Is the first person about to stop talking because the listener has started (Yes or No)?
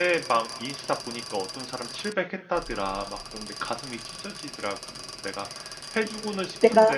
No